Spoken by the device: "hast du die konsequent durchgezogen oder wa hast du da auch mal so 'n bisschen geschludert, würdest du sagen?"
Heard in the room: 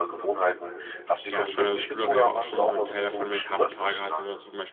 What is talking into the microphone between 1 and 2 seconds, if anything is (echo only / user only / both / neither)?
both